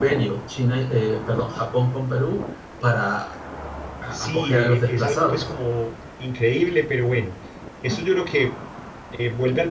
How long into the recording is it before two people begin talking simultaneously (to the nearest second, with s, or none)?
4 s